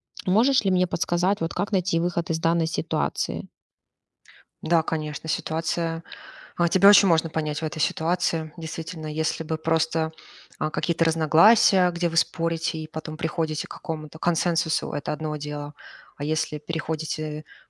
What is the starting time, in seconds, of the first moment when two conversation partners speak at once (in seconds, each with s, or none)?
none